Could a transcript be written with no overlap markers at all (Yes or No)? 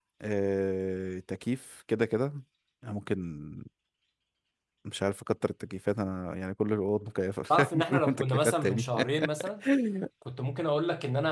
No